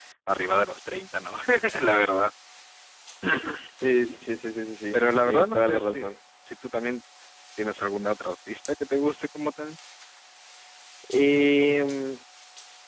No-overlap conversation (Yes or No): No